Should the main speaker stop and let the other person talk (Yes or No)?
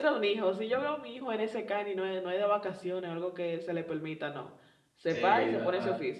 Yes